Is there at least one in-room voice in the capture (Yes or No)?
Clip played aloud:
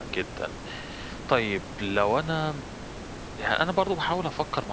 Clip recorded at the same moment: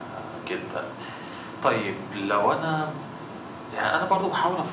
No